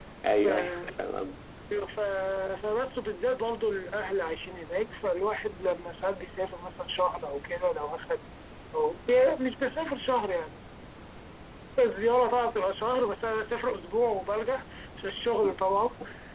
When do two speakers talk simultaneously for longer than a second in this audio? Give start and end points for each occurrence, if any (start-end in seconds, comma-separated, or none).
none